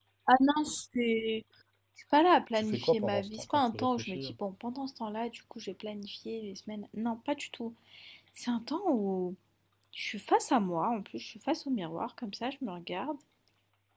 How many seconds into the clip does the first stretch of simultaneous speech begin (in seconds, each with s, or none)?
2.5 s